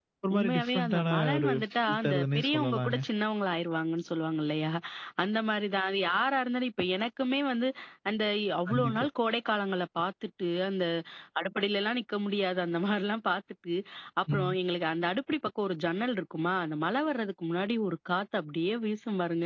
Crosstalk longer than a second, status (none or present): present